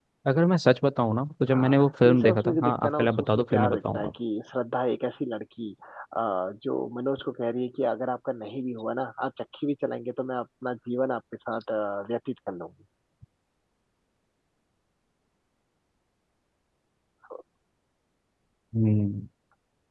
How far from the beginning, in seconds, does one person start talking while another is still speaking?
1.5 s

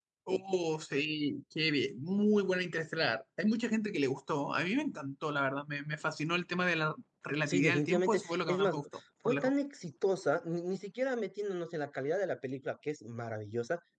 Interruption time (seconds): 7.5 s

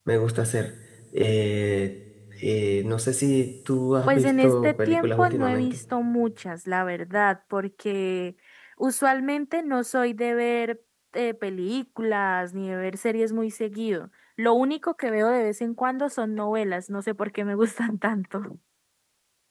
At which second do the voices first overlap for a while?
4.1 s

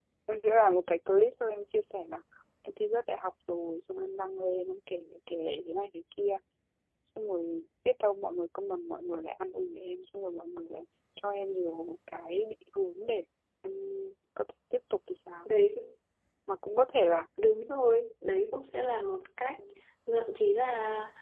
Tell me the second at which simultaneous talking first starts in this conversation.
none

